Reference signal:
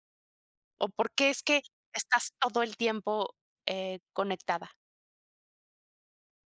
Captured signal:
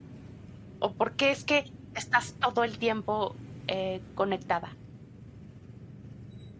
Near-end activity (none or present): none